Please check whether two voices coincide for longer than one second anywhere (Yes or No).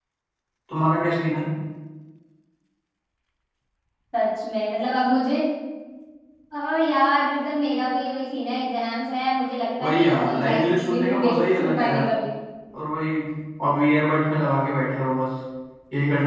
Yes